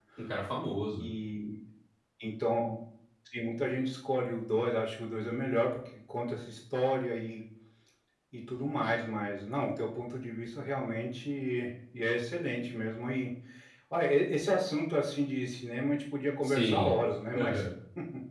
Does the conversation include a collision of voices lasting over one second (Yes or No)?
No